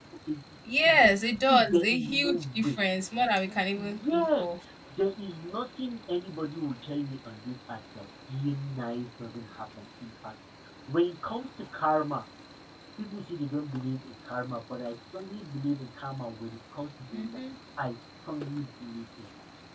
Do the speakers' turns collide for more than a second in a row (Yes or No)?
Yes